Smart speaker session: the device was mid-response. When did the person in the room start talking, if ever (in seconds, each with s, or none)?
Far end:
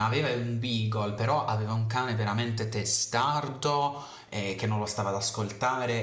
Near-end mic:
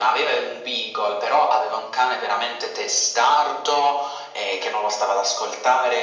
none